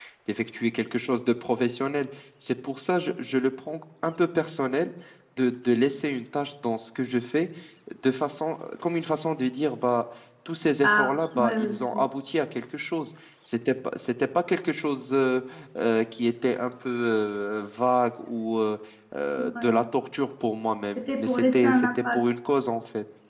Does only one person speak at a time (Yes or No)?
No